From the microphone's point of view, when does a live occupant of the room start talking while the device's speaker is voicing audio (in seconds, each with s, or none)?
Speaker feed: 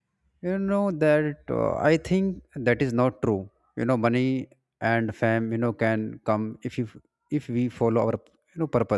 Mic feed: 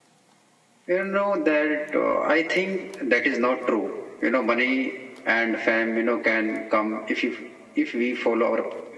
none